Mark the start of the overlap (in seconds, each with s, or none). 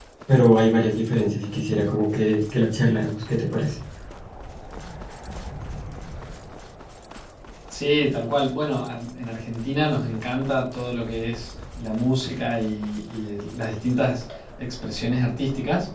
none